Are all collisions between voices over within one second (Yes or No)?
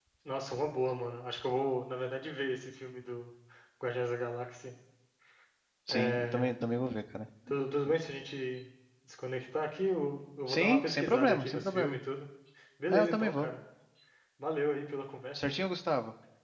No